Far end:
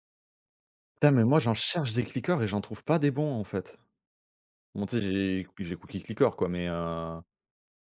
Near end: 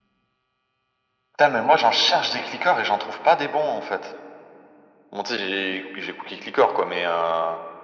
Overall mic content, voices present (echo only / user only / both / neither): echo only